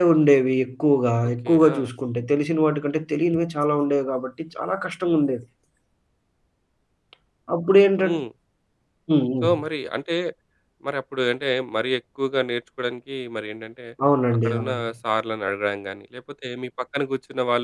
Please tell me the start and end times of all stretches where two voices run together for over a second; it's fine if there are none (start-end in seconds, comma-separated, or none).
none